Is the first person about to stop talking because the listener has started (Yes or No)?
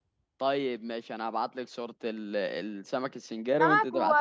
Yes